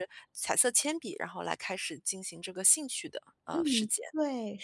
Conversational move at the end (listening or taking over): taking over